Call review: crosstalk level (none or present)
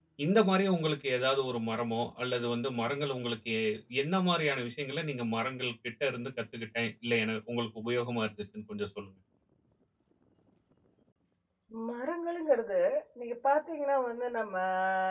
none